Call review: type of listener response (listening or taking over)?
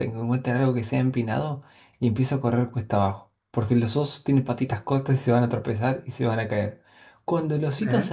listening